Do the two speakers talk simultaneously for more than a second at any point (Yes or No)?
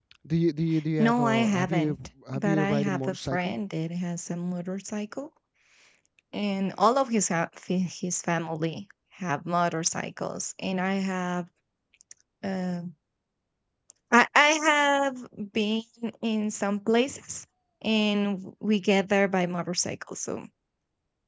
Yes